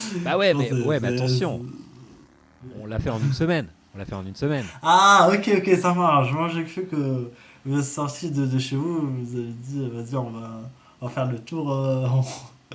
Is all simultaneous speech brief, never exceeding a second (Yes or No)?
No